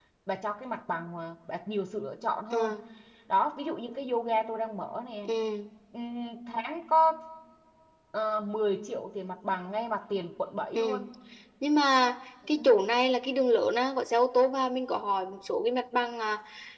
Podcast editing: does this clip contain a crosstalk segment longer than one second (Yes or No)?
No